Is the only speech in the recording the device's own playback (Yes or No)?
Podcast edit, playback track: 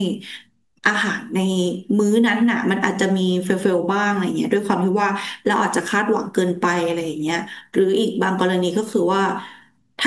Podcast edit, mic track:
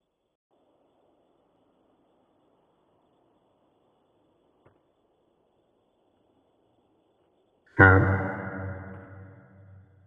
No